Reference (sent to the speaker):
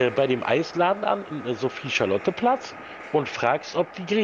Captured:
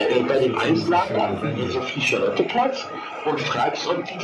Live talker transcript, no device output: Das wäre zumindest eine schöne Wende.

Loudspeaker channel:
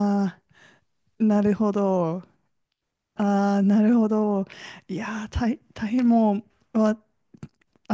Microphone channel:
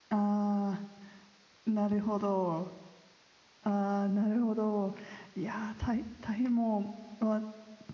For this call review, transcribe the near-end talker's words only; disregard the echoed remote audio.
none

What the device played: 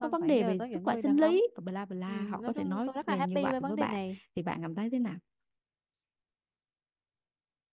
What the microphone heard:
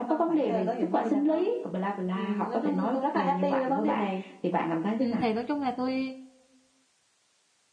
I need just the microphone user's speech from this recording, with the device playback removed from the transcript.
Ừ, thì nói chung là tôi

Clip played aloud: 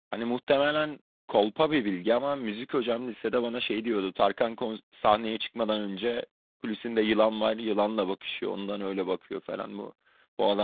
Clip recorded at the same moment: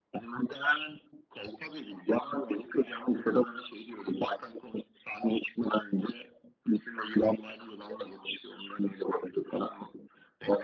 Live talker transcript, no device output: none

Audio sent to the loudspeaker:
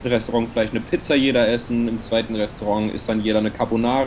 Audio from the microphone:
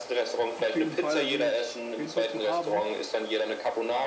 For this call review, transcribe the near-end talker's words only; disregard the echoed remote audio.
Auf jeden Fall, da bin ich auf jeden Fall zu haben.

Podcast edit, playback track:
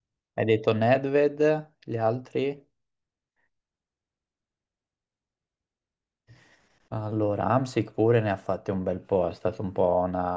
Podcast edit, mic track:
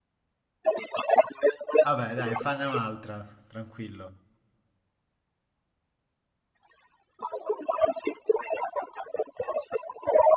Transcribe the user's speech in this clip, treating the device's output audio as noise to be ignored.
Vabbè, dai, fanne un'altra, tranquillo.

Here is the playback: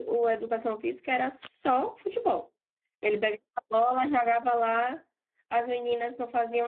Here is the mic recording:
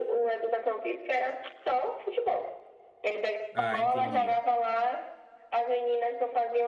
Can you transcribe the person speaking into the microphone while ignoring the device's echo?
Ah, entendi.

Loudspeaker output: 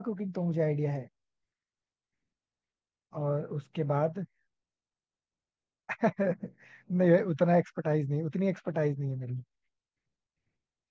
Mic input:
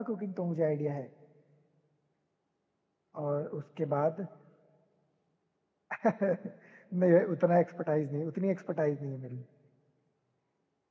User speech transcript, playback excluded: none

